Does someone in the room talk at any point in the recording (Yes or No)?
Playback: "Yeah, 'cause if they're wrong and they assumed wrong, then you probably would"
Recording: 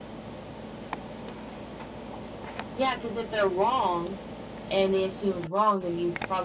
No